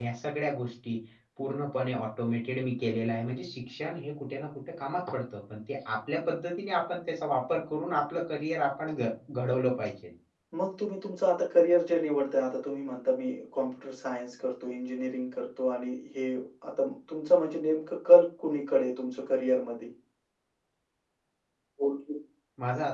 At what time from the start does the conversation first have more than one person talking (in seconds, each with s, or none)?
none